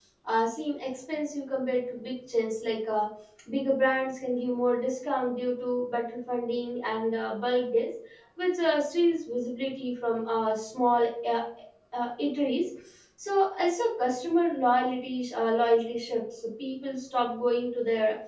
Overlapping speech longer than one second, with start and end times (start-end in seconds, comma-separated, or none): none